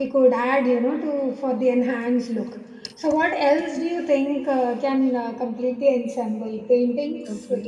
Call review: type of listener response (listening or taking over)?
taking over